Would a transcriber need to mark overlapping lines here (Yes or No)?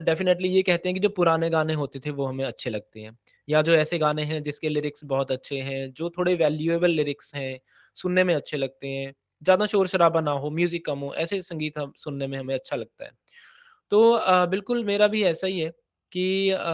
No